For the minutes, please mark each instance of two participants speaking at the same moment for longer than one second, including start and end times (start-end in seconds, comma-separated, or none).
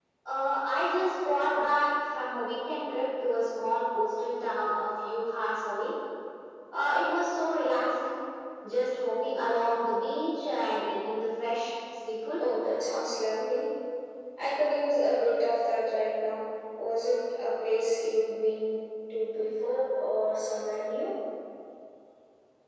none